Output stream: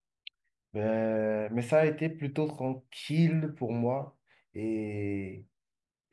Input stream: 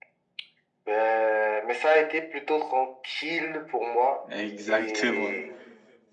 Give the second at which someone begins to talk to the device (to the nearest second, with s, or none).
4 s